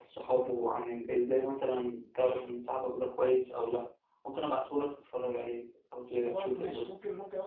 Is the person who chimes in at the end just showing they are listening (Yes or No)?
No